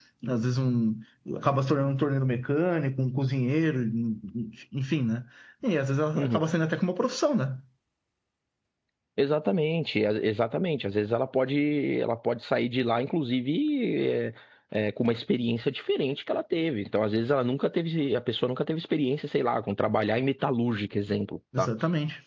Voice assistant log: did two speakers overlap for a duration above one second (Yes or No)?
No